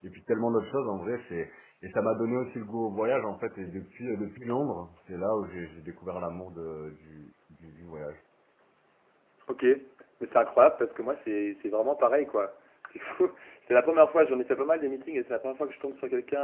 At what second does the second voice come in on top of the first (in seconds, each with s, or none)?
none